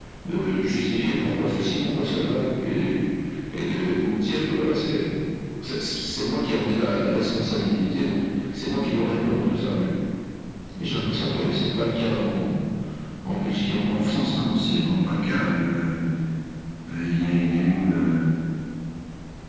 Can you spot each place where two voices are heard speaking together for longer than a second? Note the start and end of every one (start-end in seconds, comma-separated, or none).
none